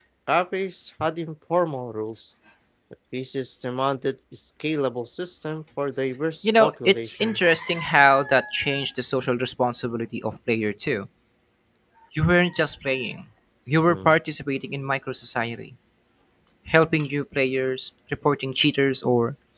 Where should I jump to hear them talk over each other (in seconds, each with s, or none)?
6.4 s